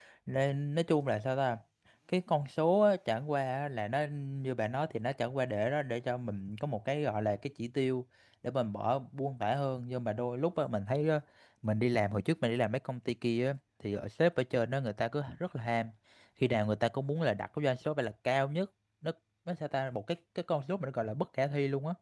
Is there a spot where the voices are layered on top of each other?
No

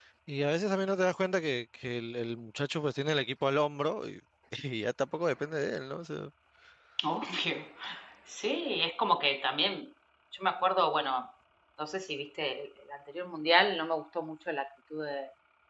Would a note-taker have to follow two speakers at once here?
No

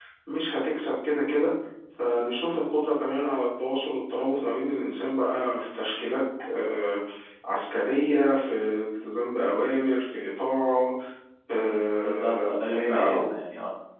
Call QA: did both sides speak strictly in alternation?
No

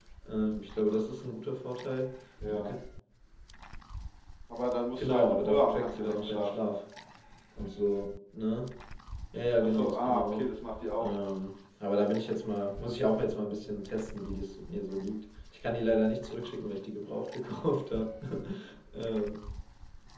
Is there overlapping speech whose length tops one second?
Yes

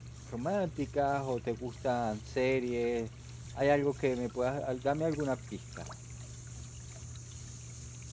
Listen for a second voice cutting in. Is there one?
No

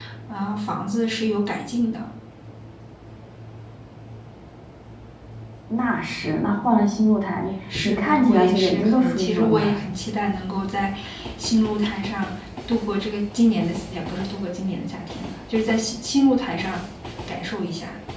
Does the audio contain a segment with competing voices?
Yes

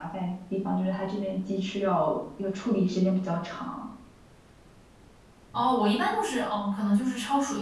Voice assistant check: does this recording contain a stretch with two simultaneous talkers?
No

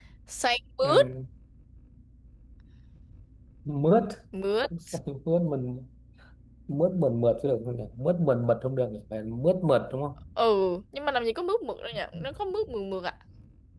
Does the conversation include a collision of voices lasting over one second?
No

